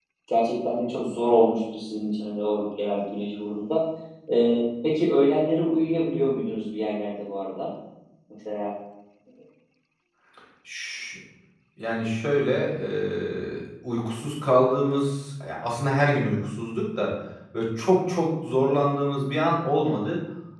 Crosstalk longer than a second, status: none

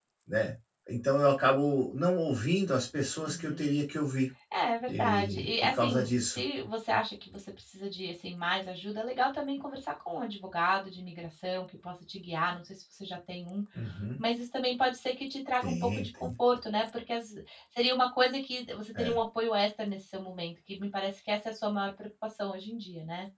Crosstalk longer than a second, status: present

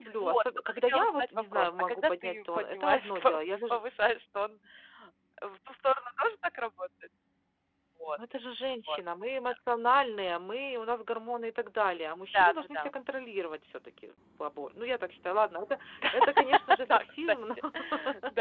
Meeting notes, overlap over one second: present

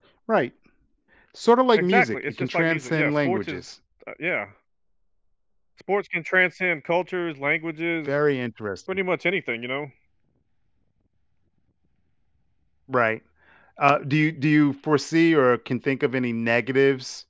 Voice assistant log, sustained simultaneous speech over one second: present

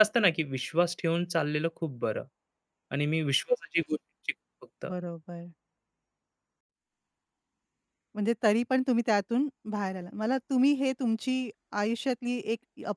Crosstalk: none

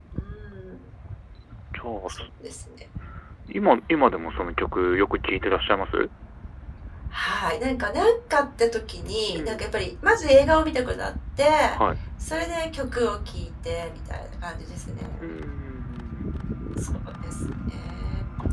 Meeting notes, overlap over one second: none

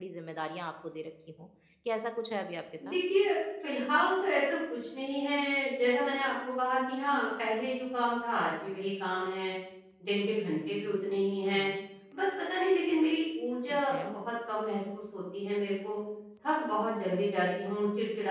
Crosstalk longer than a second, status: none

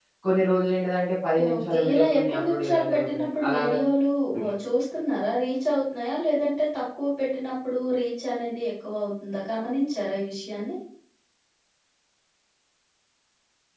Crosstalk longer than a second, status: present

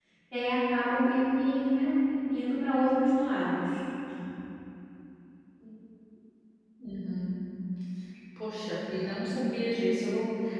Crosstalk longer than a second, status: none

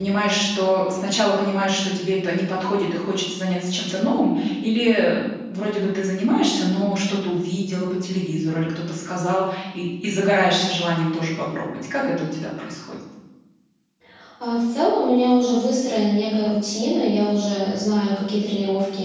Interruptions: none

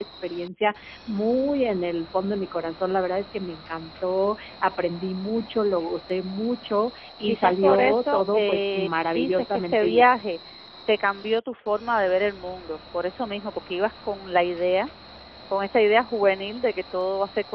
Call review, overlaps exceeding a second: present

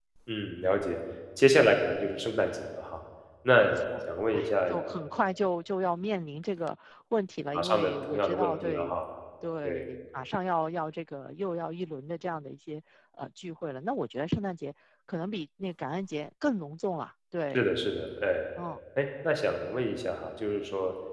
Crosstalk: present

